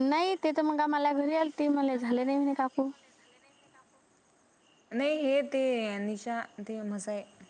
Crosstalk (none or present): none